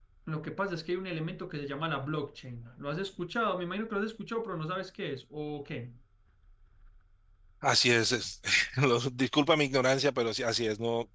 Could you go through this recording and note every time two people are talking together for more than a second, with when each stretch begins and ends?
none

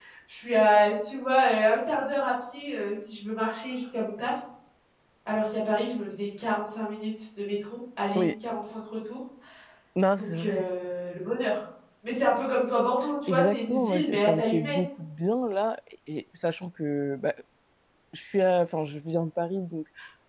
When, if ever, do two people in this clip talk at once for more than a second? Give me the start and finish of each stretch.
13.3-14.8

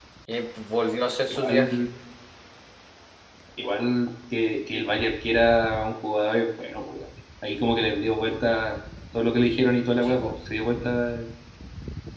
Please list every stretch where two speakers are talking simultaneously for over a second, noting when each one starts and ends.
none

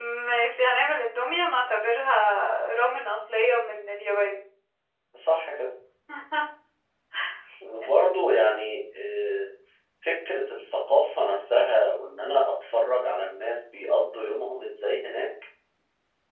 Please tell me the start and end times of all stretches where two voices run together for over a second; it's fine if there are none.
none

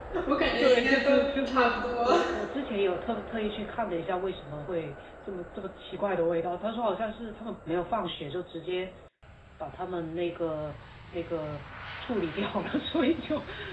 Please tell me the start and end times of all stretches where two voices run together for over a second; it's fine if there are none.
0.6-2.1

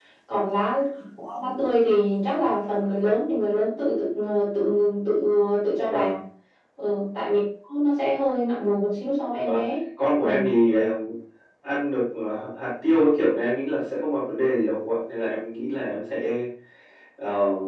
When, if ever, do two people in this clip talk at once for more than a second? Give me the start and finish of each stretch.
none

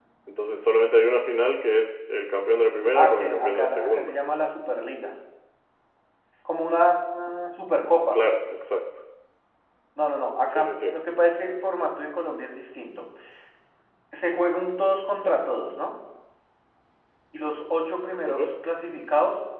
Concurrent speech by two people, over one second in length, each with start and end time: 3.0-4.2

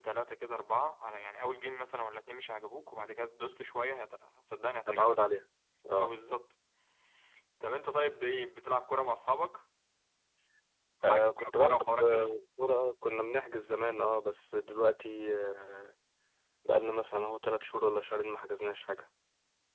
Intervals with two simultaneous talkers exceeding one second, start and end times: 11.1-12.3

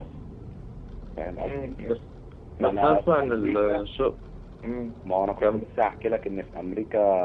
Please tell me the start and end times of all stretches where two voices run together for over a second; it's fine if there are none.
2.6-3.8

